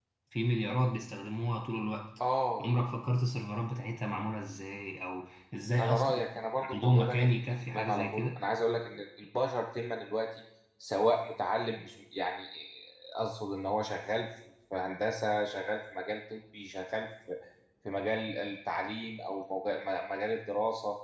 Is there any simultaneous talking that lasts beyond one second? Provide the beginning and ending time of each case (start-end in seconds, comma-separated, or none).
6.7-8.2